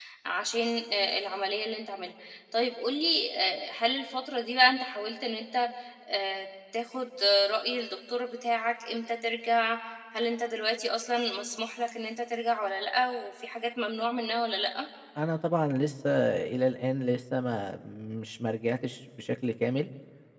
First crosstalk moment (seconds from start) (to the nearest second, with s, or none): none